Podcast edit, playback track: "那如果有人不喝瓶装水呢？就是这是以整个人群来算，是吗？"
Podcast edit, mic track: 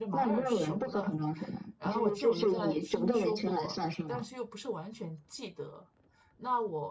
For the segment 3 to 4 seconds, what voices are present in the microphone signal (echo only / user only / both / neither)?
both